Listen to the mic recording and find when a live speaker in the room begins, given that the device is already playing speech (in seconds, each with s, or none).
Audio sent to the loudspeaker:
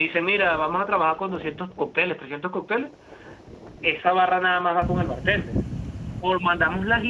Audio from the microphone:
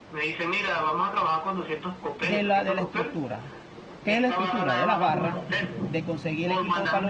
2.2 s